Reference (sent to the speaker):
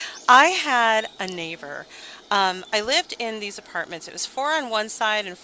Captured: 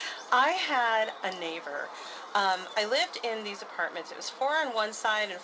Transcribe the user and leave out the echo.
none

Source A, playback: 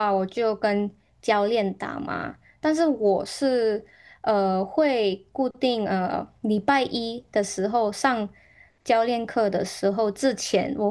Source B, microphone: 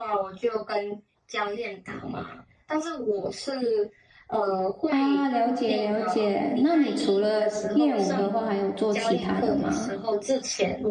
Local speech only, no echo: 啊，了解了解。那你除了练舞的话，还有做其他的吗？

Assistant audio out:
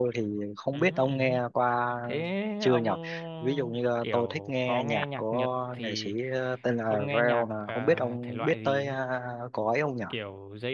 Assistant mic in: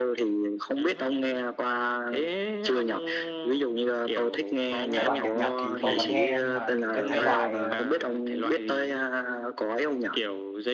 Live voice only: thể loại nhạc Nhật thì tôi vẫn nghe nhưng mà kiểu cái thể loại ờ,

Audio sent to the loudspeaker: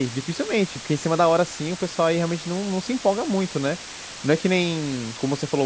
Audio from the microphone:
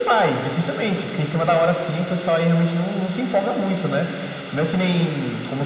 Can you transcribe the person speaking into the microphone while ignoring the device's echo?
none

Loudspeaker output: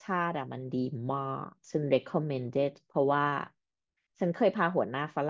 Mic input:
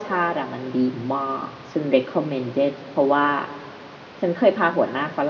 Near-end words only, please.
none

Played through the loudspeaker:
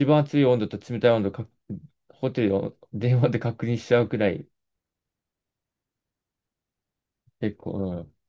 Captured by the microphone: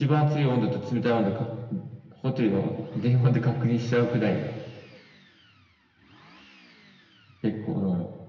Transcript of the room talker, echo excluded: none

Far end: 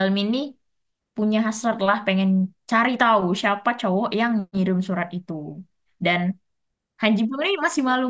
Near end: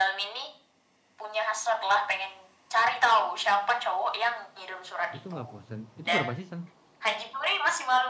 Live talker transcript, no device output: Itu nggak bosan. Itu berapa season?

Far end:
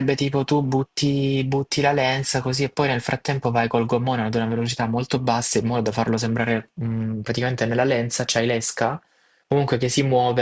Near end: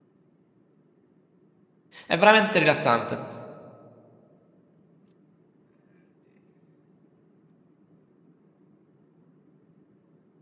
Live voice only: È veramente rilassante.

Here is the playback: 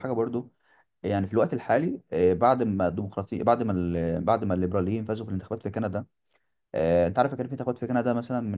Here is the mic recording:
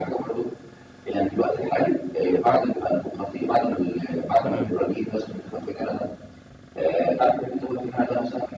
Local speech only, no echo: تمام

